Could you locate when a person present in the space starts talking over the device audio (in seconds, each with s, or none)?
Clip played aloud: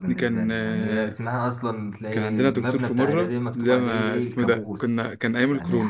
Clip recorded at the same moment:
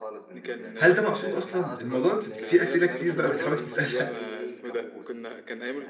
0.8 s